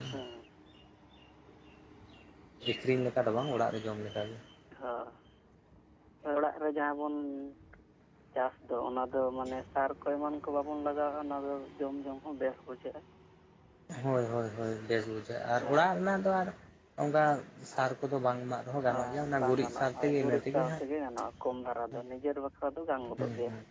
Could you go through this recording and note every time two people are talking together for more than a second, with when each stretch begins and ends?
18.9-20.8

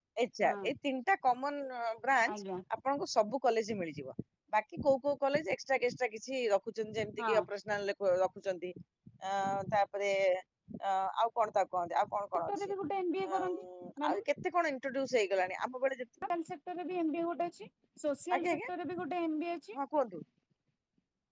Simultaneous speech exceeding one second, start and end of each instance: none

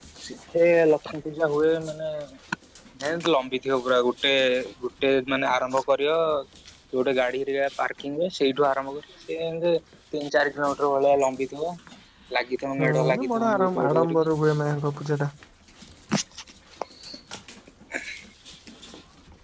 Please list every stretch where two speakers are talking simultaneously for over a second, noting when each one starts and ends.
12.8-14.3

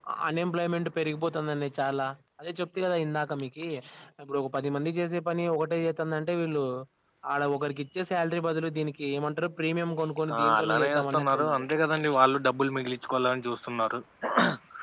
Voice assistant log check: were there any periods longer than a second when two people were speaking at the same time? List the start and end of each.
10.4-11.6

